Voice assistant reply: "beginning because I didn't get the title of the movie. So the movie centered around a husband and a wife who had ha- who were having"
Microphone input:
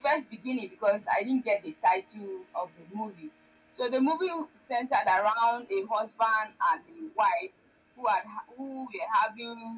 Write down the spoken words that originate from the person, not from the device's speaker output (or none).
none